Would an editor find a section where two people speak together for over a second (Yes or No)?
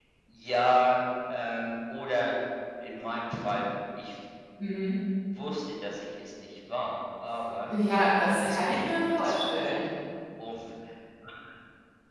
Yes